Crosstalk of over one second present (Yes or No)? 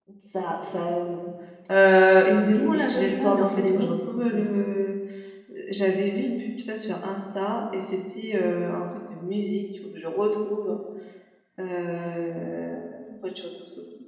Yes